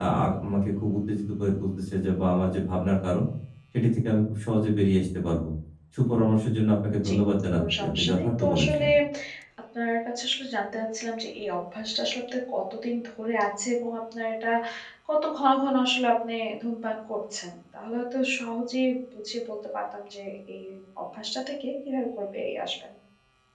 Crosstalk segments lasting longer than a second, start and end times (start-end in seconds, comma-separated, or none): 7.5-8.8